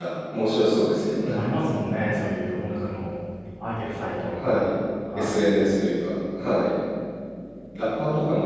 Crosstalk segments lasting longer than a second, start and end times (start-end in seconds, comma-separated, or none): none